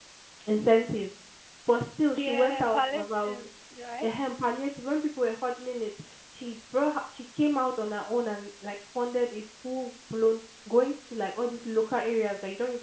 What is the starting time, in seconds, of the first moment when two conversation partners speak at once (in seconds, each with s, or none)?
2.2 s